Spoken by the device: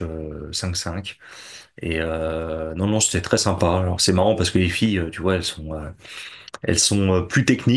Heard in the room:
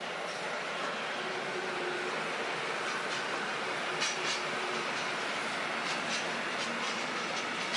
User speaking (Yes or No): No